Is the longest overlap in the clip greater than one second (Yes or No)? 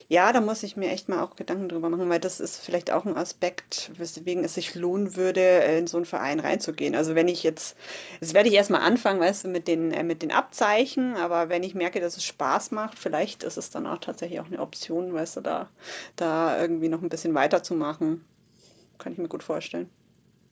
No